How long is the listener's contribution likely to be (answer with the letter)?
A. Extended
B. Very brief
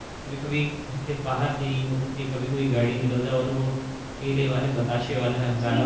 A